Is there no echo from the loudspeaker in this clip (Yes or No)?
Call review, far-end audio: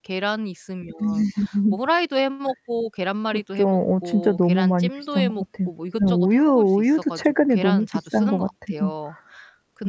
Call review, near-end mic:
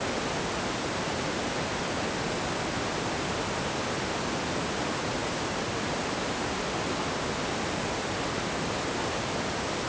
Yes